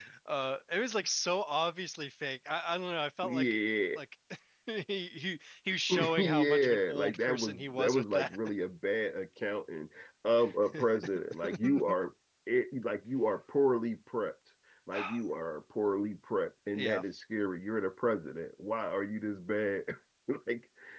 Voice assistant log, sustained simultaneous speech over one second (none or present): present